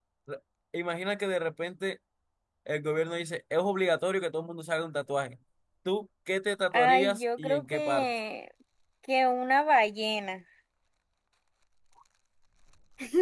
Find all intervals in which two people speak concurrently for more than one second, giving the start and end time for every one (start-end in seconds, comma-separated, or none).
6.7-8.1